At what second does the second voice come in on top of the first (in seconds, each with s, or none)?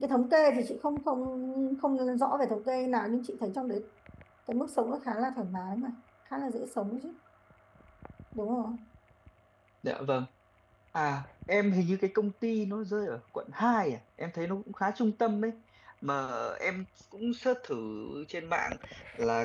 none